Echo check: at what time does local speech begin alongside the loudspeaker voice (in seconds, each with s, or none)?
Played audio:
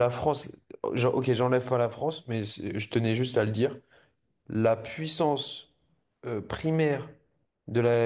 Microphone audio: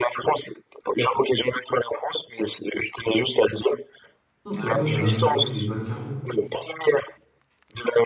4.4 s